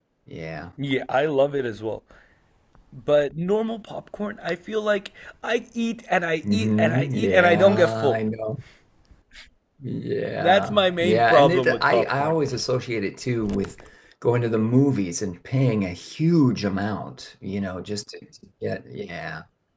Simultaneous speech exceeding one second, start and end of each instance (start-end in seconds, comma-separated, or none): 6.5-8.2, 10.4-12.3